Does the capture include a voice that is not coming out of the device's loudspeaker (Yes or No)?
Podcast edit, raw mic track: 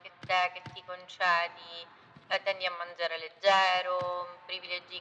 No